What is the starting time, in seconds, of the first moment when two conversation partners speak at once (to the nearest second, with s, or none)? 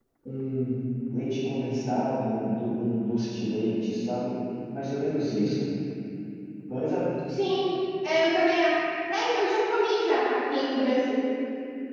none